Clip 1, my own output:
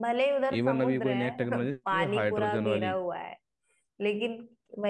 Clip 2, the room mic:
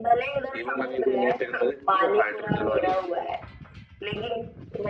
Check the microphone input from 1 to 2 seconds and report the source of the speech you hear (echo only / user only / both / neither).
echo only